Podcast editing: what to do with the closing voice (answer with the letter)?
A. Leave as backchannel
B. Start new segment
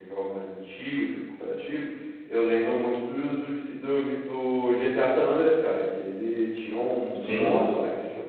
A